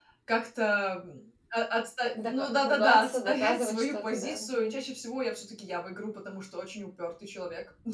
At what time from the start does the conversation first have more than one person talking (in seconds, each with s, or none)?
2.2 s